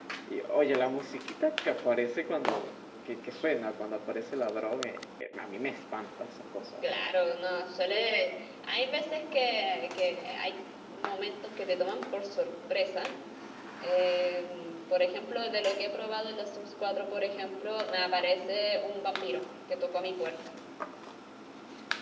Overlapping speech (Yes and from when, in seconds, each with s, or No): No